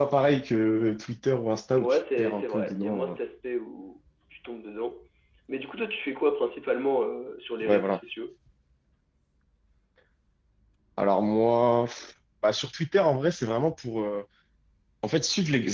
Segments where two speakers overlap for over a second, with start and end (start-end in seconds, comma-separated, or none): 1.8-3.2